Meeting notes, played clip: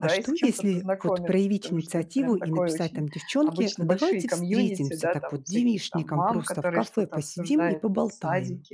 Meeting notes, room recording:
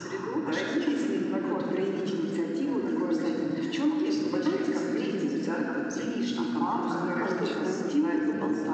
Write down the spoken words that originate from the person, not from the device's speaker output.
Н-да, точно.

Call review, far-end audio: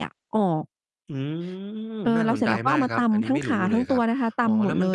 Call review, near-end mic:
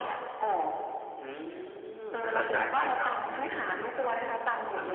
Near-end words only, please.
อะฮะ

